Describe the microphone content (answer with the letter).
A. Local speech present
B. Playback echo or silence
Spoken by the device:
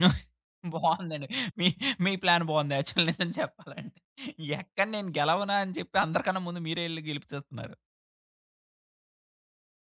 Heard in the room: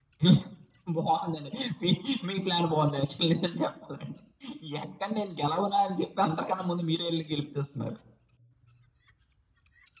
B